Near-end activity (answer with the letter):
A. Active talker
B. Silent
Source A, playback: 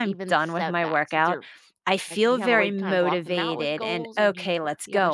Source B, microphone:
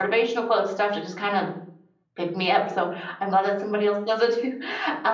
A